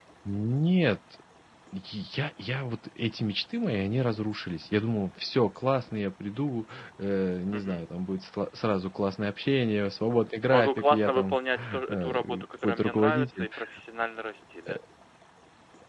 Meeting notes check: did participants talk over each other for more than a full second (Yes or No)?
Yes